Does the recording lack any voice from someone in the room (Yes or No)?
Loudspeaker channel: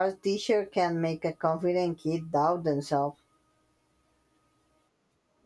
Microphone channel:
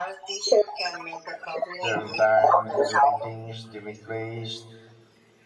No